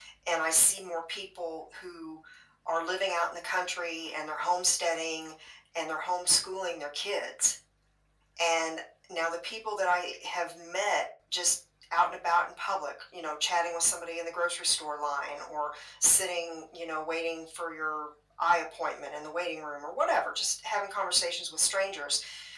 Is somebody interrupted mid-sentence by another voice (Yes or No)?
No